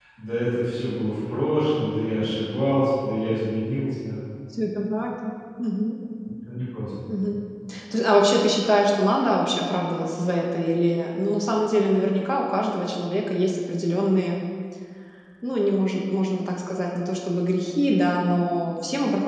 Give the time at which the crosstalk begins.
none

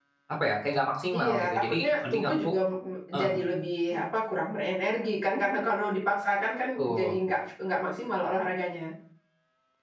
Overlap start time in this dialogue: 1.1 s

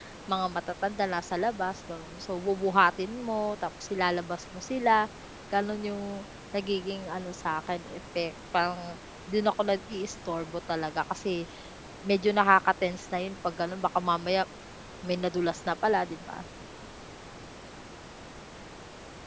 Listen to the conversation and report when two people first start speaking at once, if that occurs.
none

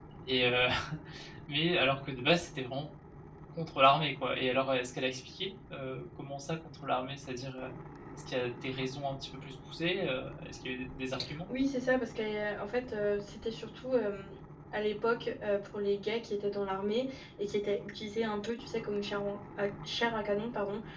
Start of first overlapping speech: none

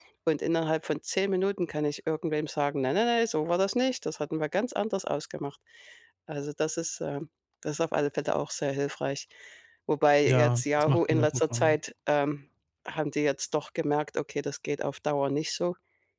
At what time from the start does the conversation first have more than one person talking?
10.2 s

